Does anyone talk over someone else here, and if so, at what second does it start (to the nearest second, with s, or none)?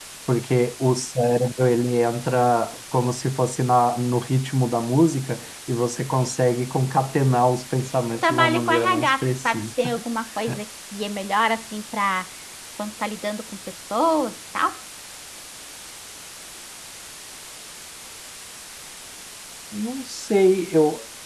8 s